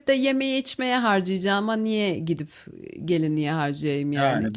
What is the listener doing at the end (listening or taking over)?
taking over